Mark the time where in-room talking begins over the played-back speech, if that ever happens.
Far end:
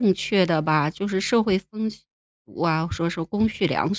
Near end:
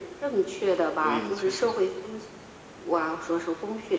1.0 s

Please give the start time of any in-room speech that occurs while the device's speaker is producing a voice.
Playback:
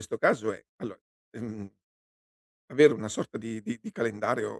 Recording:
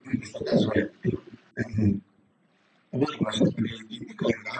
none

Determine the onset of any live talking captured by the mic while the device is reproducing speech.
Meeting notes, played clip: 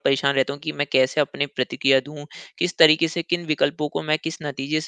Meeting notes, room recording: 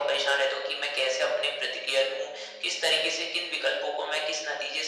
none

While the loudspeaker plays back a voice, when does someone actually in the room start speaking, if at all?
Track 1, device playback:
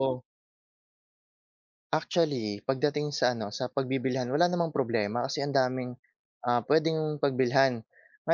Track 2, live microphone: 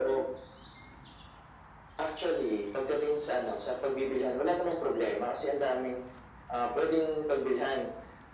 none

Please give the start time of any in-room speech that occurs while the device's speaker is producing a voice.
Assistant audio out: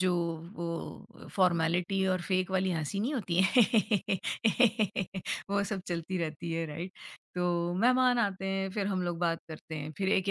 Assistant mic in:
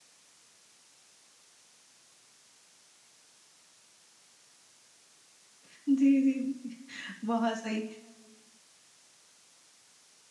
5.7 s

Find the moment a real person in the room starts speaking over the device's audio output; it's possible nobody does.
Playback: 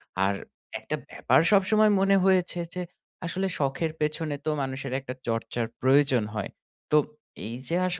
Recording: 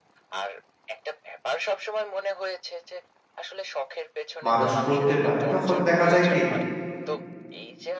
4.5 s

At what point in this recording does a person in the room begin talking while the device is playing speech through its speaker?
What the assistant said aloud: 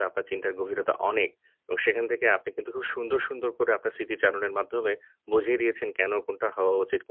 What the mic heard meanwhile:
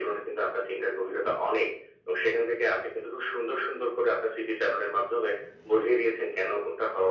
none

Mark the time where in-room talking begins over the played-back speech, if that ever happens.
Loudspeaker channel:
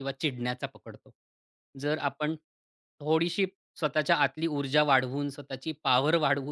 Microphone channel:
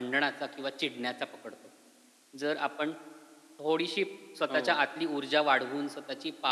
4.5 s

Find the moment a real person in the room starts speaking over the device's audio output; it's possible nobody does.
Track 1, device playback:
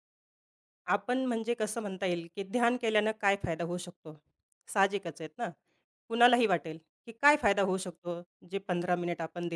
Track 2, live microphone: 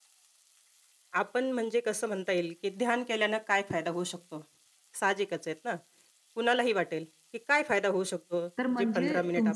8.6 s

